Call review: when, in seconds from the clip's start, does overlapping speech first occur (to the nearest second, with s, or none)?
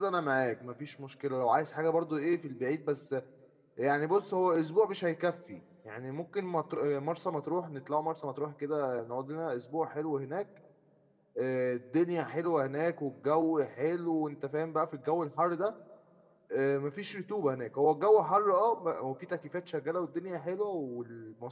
none